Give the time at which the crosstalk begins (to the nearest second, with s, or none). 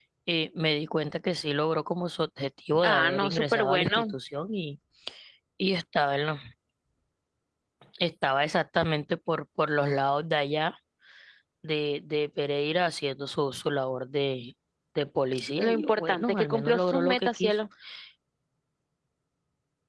3 s